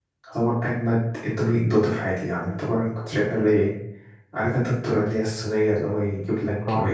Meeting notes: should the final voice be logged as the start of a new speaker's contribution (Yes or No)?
No